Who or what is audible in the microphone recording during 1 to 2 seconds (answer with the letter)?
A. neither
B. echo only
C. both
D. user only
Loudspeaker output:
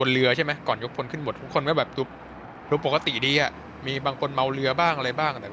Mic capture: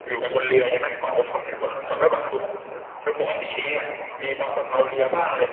B